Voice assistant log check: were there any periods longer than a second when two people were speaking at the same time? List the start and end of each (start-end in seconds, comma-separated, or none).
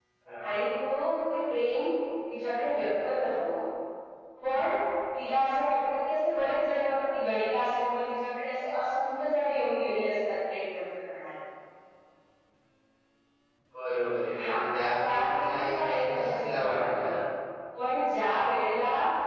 15.0-17.1